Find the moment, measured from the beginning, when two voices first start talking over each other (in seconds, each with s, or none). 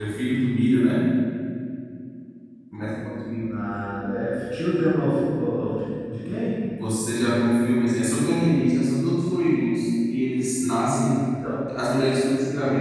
none